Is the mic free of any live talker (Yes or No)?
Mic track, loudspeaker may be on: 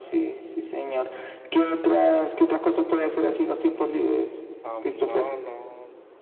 No